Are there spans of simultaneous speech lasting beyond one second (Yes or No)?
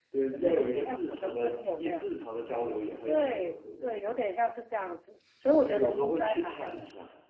Yes